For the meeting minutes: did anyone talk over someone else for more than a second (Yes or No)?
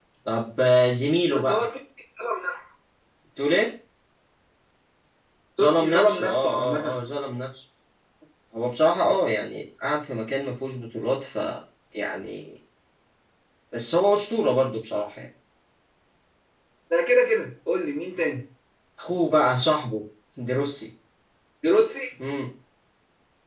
Yes